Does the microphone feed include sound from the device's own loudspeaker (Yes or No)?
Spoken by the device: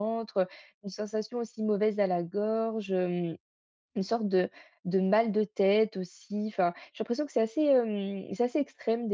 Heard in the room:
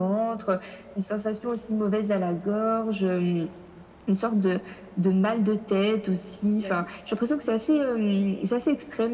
Yes